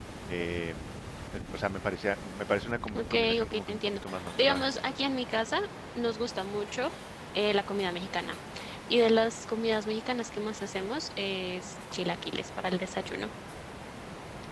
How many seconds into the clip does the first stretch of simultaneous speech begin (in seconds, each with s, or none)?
2.9 s